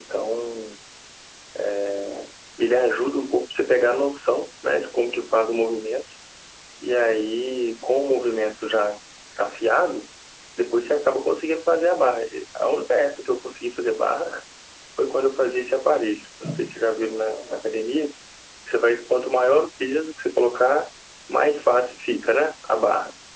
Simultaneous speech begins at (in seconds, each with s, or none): none